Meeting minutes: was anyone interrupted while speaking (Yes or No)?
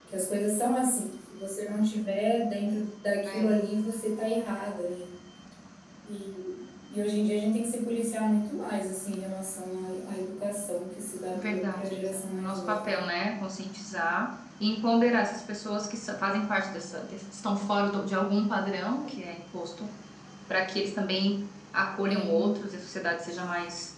Yes